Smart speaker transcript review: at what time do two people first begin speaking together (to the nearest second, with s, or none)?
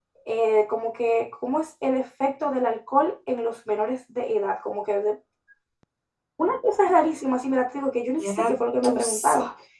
8 s